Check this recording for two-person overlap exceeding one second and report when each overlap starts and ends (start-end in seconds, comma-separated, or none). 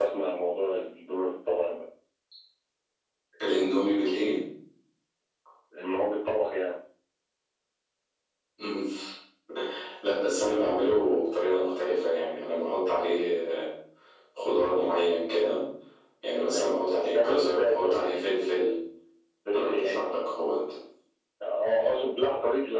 17.1-18.5